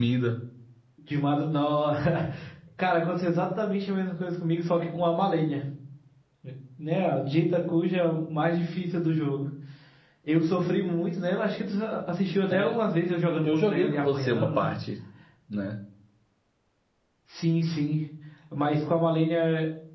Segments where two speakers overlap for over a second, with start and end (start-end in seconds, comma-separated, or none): 13.4-14.7